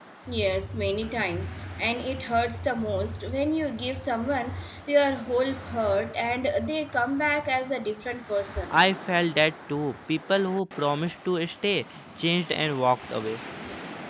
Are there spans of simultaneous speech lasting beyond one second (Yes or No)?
No